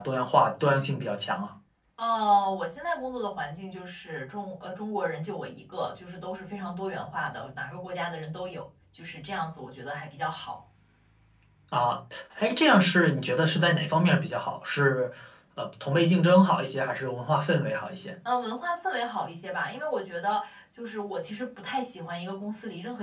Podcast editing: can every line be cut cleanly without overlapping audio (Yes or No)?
Yes